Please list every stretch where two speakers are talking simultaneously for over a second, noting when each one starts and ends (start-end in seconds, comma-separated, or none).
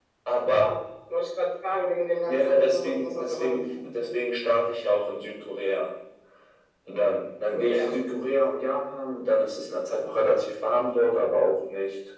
2.3-4.1